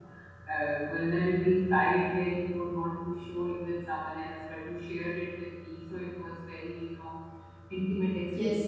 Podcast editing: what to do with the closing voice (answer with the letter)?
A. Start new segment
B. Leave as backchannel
A